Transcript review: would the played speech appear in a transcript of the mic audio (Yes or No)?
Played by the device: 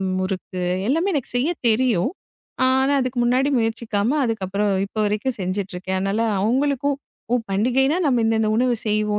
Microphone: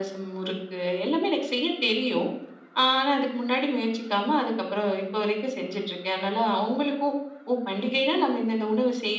Yes